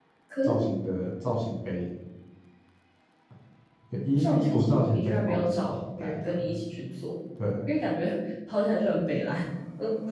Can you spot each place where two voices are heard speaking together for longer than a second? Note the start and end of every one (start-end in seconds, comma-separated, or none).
4.2-6.6